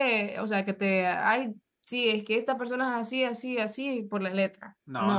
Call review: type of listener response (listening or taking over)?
taking over